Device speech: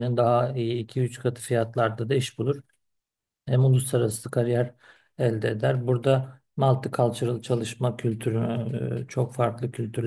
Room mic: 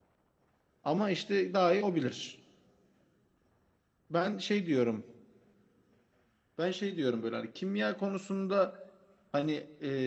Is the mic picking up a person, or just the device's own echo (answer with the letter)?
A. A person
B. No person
A